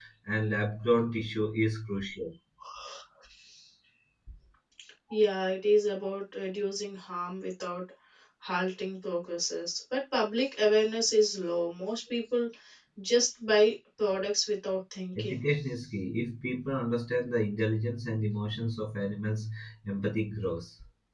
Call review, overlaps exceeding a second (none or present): none